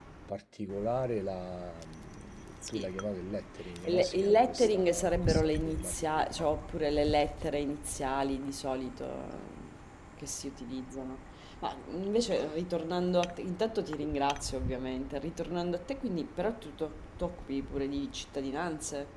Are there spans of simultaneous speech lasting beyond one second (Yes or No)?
Yes